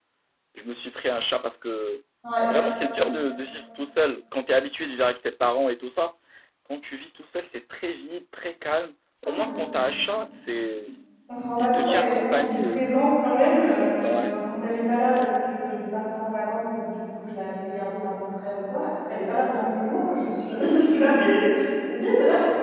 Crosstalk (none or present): present